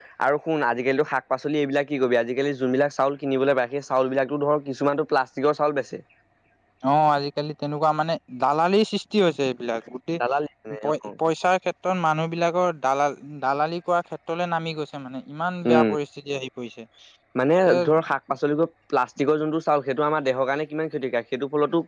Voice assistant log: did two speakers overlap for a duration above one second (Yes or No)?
No